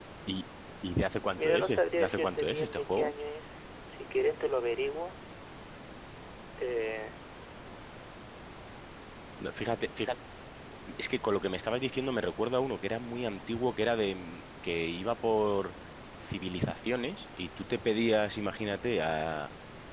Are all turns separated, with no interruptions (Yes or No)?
No